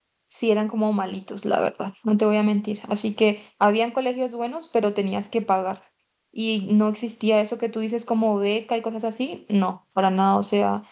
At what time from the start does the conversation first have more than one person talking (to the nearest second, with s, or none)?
none